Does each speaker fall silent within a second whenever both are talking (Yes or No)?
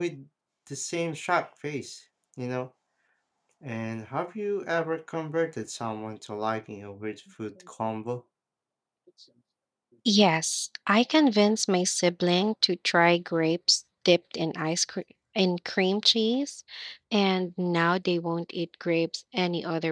Yes